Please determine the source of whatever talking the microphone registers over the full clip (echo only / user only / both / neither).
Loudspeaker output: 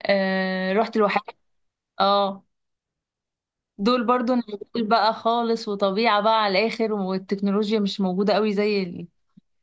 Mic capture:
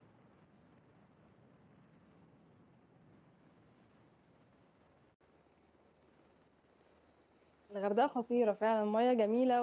user only